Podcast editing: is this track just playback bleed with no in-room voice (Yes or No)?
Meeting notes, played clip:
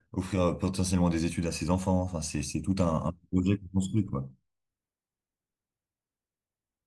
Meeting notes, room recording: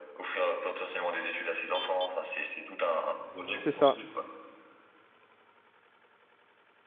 No